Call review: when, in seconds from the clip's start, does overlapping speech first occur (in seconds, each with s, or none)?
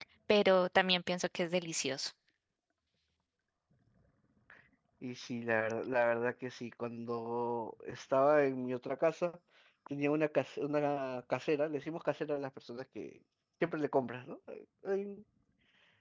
none